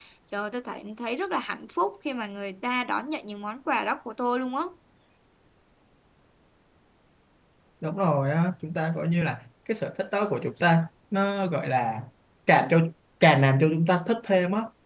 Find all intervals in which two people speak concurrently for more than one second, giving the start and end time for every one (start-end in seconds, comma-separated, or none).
none